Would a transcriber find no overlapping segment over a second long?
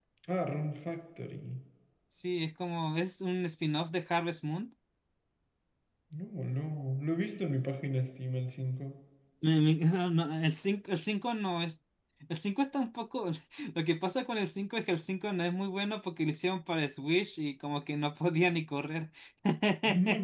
Yes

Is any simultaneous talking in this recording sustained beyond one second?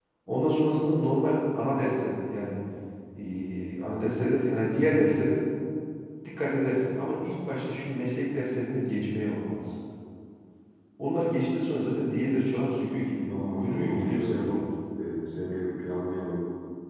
Yes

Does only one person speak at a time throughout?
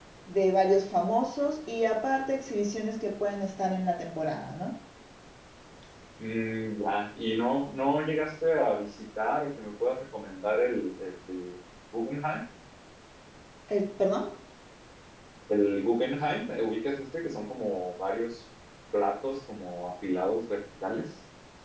Yes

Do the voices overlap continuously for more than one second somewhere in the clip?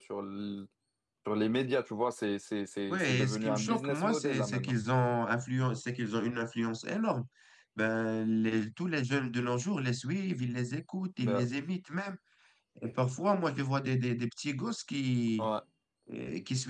Yes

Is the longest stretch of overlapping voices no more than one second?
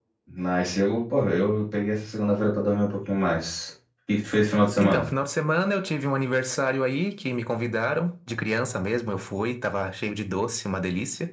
Yes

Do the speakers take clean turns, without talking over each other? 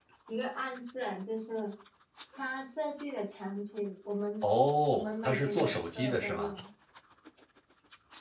No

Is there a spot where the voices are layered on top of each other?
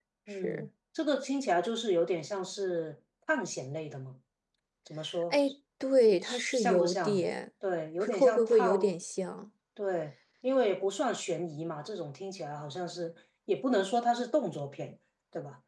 Yes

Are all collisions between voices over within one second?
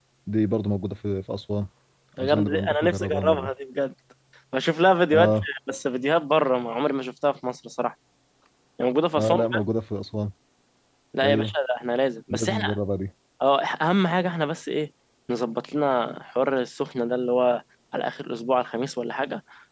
No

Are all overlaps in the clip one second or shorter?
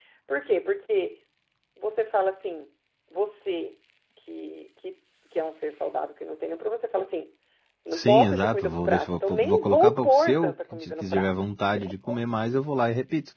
No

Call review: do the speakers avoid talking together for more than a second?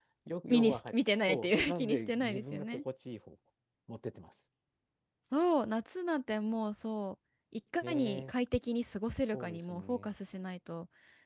No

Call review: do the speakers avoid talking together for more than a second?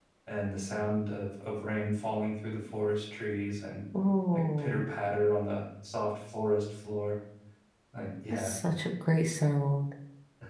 Yes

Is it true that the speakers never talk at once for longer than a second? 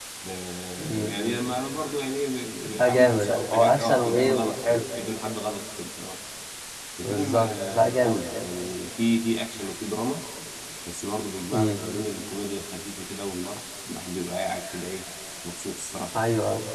No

